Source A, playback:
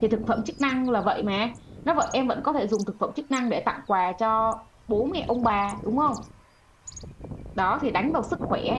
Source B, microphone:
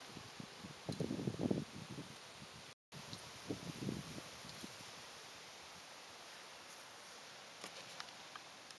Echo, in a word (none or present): none